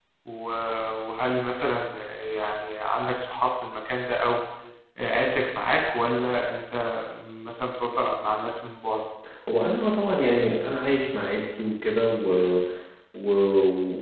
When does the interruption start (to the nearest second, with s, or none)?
none